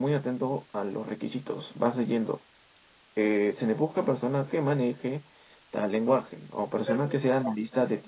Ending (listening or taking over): listening